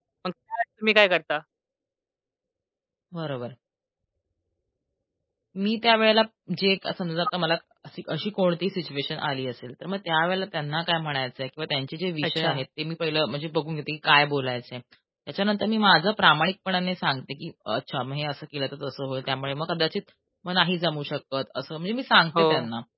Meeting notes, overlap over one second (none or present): none